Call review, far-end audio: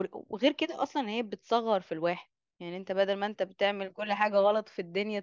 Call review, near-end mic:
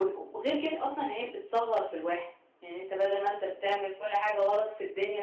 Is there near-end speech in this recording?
No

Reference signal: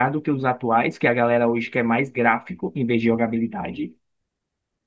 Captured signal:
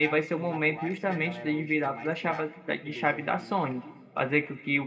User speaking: Yes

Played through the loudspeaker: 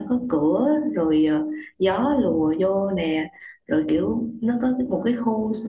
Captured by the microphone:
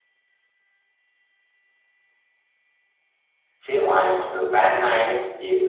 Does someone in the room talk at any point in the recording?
Yes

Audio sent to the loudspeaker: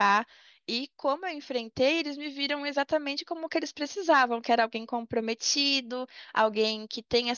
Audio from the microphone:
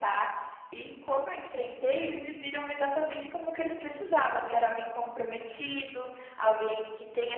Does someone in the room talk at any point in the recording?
No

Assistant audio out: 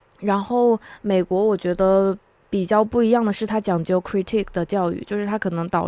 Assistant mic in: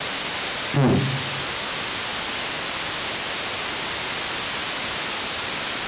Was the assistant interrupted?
Yes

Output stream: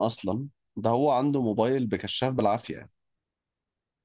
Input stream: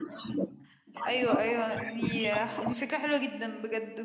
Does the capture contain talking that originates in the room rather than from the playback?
Yes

